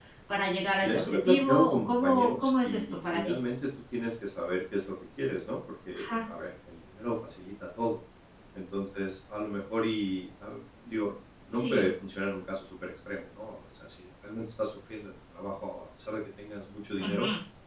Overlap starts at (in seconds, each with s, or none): 0.8 s